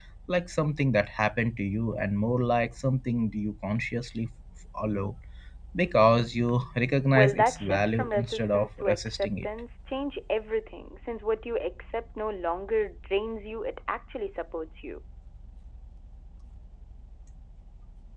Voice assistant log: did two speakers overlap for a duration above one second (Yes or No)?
Yes